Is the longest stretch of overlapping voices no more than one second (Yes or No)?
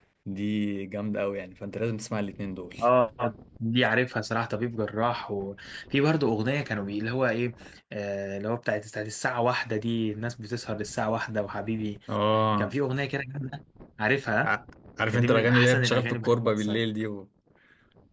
No